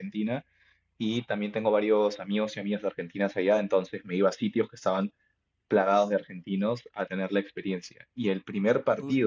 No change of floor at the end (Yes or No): Yes